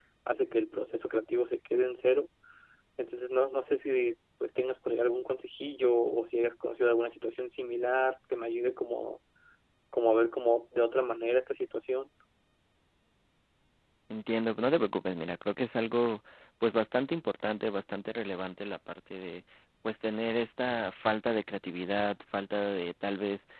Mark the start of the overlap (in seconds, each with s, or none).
none